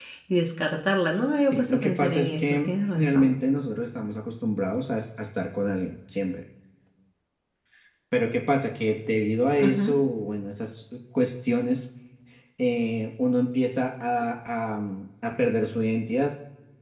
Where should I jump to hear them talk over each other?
1.5 s

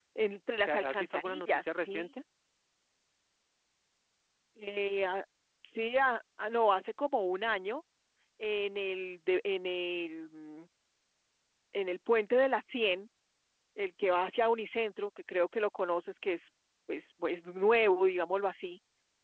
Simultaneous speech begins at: 0.6 s

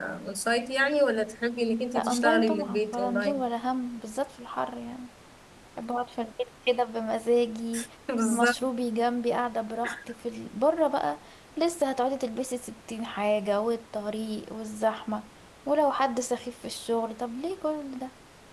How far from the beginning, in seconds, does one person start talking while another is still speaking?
1.9 s

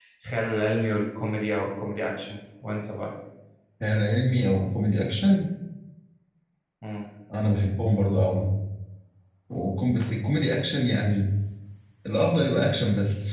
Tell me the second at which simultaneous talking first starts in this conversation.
none

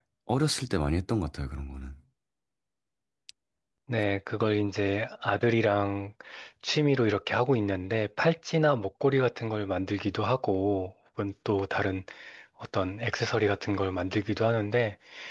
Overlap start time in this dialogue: none

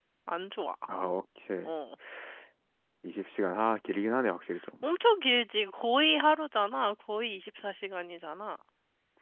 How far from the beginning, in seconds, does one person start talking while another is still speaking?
none

